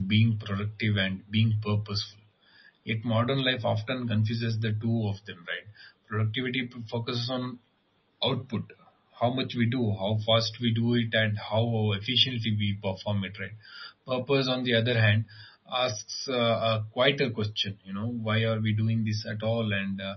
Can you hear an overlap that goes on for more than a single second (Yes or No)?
No